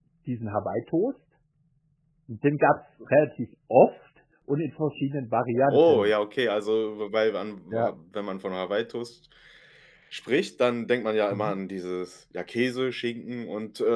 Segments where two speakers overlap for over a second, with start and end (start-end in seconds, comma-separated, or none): none